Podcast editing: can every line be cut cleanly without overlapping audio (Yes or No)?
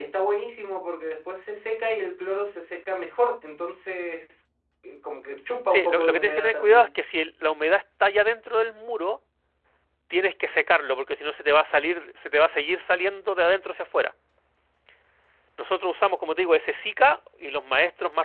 No